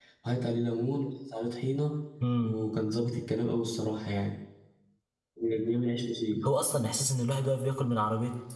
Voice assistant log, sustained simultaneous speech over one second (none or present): none